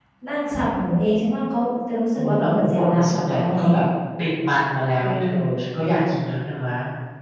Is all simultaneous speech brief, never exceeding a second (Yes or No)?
No